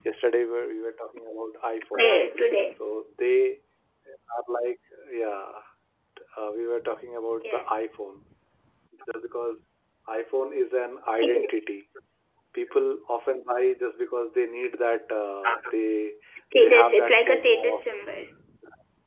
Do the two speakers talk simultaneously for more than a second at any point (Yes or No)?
Yes